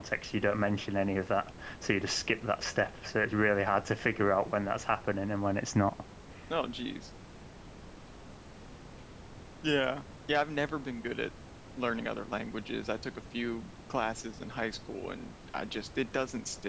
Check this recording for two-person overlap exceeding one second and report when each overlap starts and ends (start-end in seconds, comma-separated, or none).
none